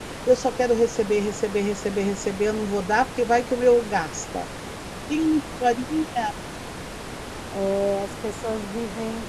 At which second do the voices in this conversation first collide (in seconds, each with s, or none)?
none